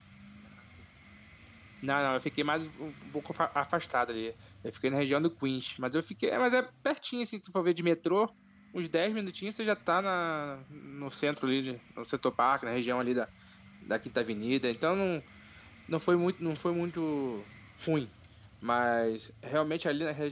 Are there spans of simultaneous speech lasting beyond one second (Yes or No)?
No